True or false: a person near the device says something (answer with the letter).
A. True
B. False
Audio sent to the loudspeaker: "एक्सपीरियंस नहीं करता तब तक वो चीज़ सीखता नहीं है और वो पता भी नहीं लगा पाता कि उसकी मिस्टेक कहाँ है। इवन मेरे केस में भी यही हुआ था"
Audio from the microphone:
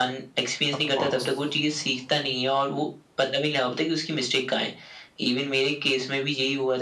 A